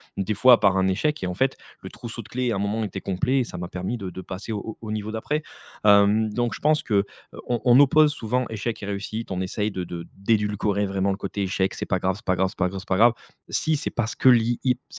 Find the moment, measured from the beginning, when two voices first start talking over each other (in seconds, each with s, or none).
none